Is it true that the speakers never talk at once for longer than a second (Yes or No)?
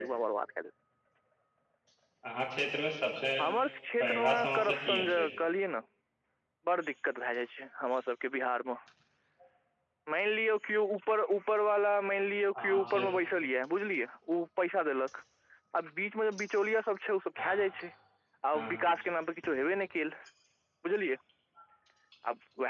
No